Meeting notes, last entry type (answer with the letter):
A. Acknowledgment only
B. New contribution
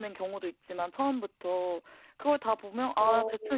A